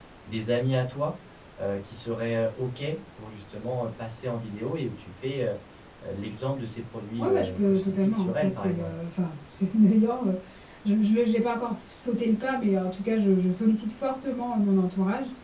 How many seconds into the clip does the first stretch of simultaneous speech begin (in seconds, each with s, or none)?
7.2 s